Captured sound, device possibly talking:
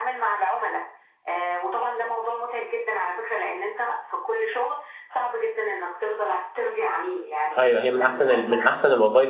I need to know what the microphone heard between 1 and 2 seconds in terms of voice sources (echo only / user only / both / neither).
echo only